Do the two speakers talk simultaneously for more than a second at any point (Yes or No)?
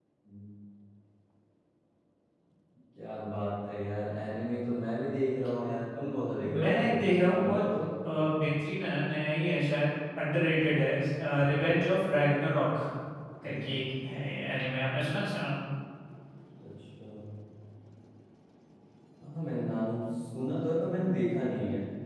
No